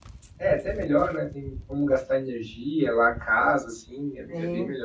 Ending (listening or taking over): taking over